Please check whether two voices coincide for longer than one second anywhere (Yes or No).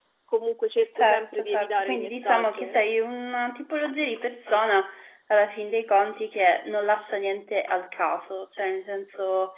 Yes